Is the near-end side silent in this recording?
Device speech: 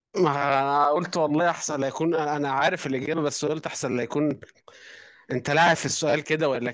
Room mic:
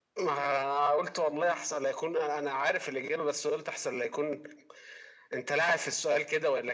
Yes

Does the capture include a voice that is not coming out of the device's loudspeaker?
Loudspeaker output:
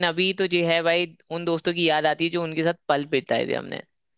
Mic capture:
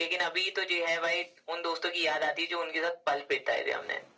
No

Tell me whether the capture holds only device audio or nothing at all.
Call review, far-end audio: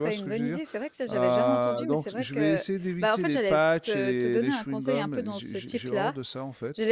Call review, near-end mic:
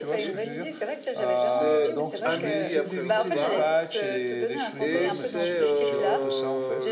No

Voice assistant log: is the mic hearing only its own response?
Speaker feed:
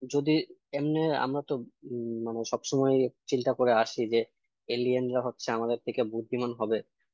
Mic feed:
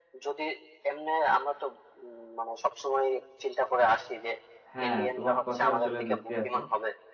No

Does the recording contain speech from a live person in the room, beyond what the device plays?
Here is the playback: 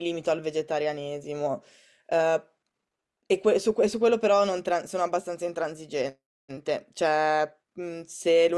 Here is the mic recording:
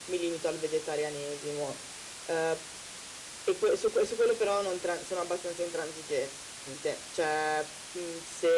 No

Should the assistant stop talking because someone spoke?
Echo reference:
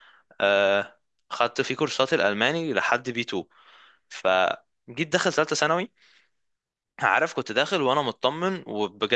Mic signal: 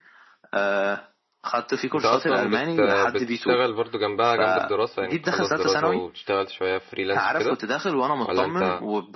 Yes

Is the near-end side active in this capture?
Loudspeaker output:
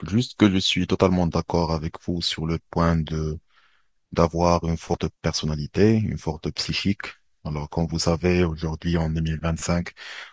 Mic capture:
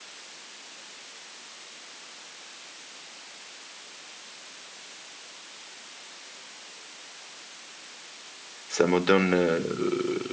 Yes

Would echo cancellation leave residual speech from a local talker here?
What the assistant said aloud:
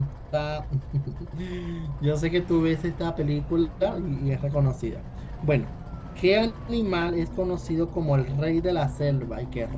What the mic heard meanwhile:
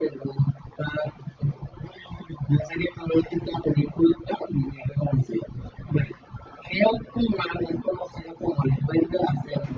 No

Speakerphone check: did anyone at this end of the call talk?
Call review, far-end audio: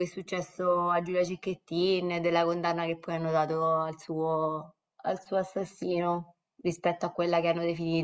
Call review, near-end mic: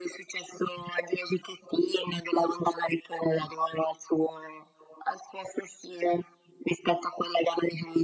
No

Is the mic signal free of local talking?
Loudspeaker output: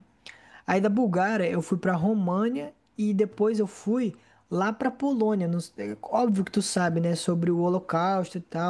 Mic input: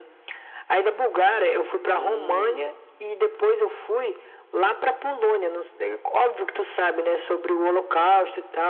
No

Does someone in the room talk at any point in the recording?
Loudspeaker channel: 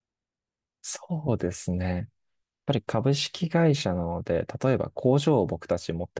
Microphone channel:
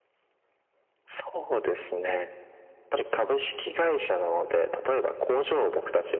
No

